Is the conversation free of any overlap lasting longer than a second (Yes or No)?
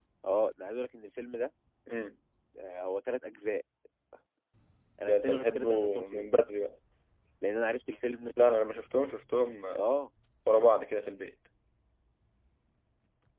No